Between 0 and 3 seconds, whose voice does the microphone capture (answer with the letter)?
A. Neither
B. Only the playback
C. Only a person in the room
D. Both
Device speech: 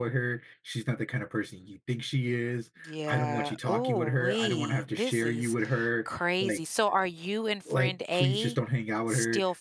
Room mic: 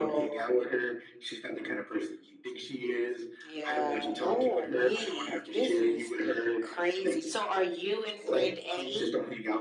B